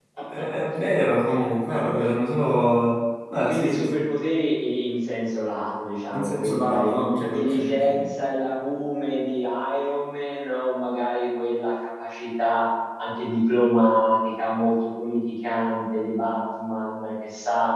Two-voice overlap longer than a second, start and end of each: 6.1-8.1

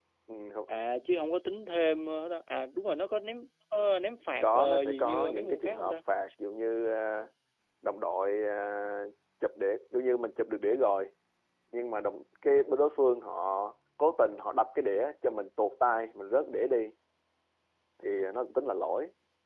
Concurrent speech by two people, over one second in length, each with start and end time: 4.4-5.9

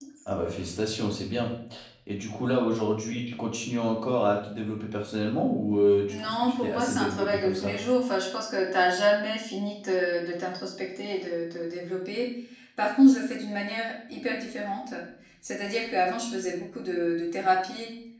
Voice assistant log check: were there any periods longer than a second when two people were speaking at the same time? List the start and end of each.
6.1-7.8

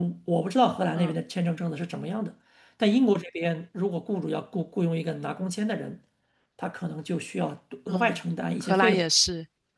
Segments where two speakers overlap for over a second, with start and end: none

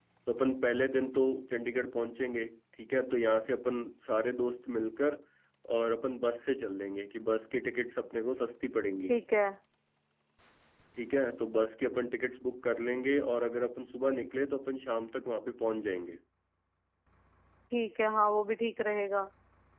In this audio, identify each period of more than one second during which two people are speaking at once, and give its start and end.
none

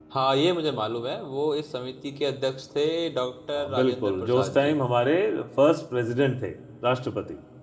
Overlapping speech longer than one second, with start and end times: 3.5-4.8

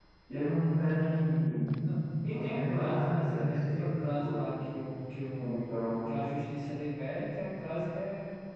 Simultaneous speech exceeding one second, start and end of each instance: 2.3-4.5

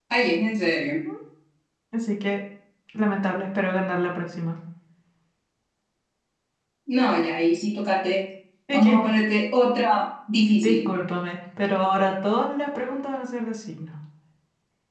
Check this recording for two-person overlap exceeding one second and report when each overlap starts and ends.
none

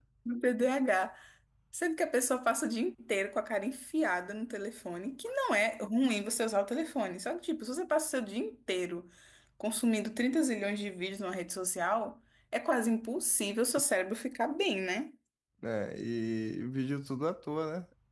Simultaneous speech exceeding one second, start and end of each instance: none

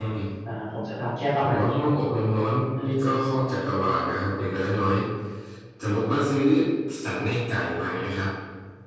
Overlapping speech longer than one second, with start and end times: none

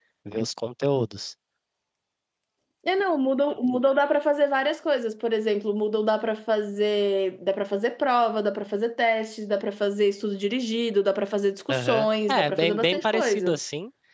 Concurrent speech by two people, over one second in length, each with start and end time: 11.7-13.5

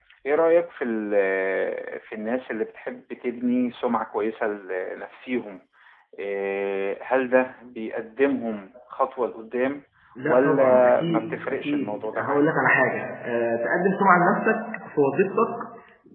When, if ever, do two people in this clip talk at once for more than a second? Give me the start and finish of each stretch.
10.2-12.4

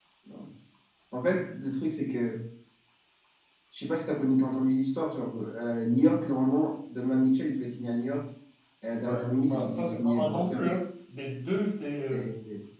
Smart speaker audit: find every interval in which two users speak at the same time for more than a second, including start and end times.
9.0-10.4

